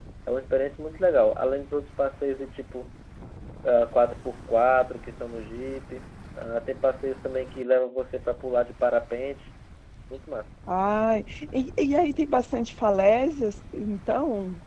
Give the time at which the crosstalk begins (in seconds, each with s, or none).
none